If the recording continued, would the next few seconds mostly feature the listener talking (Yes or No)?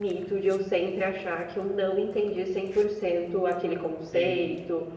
No